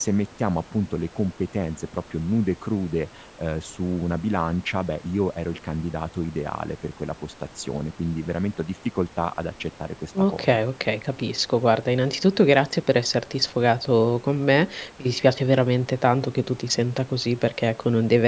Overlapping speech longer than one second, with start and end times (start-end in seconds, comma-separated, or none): none